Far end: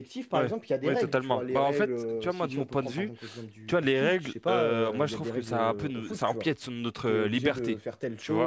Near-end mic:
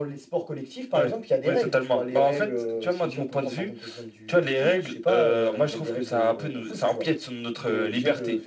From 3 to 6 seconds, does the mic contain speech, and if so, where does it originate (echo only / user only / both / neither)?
echo only